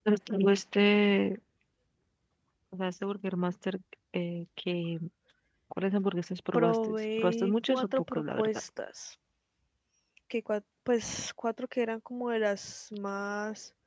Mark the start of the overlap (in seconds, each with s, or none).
6.5 s